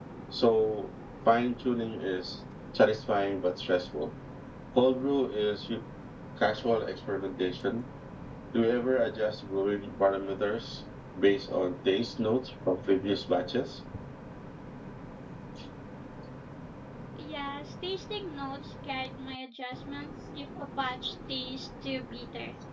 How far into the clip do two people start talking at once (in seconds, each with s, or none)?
none